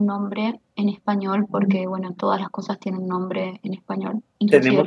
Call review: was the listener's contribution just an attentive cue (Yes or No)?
No